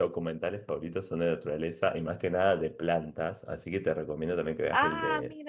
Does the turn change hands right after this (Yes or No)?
No